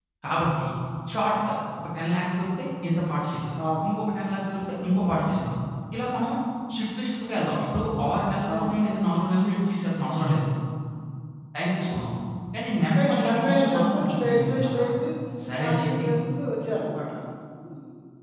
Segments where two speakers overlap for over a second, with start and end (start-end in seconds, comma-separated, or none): 12.8-14.9